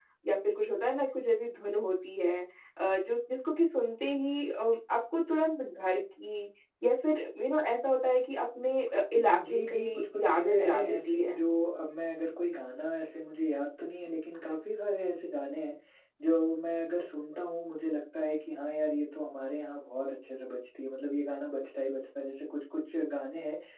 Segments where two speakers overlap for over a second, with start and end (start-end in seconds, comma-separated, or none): 9.5-11.4